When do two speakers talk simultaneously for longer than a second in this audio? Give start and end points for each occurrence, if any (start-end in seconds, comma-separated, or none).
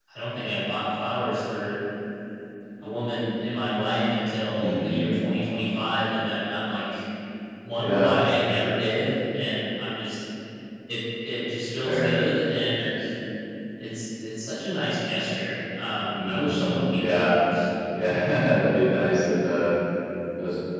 16.1-17.4